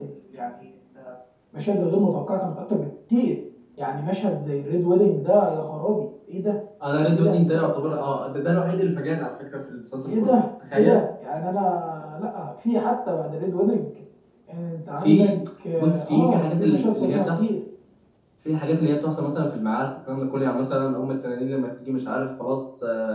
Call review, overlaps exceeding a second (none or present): present